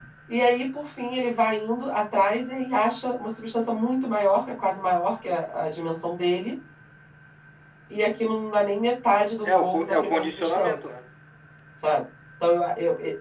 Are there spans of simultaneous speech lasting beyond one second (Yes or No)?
Yes